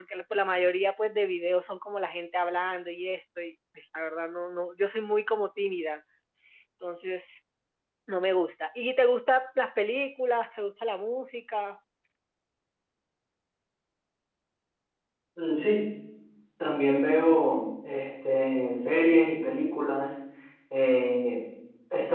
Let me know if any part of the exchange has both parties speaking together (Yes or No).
No